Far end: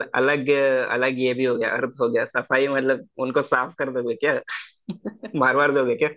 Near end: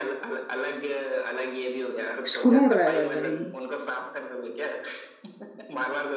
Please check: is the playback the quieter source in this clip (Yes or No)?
Yes